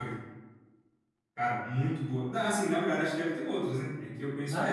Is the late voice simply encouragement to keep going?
No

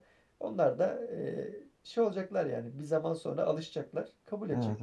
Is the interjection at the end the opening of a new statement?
Yes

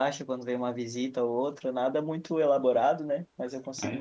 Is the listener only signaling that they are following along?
No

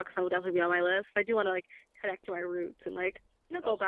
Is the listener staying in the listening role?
Yes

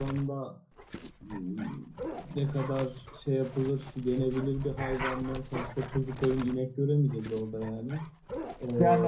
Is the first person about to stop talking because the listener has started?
Yes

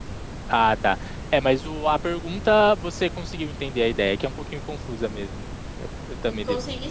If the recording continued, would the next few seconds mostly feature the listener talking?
Yes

